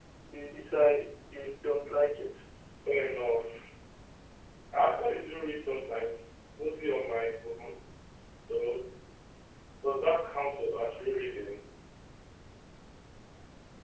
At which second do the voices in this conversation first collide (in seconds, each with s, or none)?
none